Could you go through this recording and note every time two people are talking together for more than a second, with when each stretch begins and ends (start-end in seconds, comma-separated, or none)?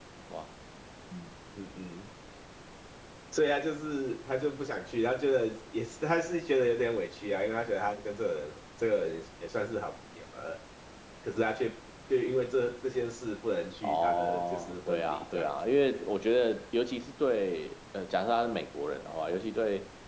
13.8-15.5